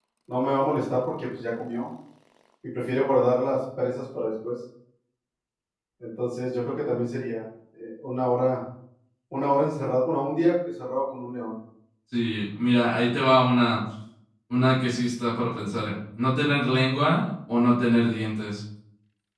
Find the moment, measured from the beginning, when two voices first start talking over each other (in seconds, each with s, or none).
none